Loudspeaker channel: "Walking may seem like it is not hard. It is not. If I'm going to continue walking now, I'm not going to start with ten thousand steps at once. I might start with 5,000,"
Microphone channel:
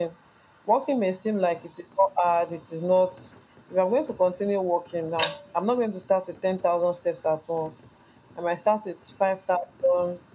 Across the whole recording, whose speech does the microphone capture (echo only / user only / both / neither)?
echo only